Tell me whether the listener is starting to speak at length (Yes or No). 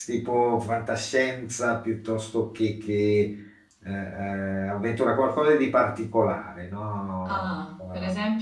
Yes